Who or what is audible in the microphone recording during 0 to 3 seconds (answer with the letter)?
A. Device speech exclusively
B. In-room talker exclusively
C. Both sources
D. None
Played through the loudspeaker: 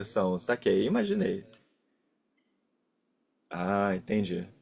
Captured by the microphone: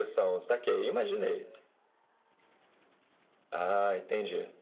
A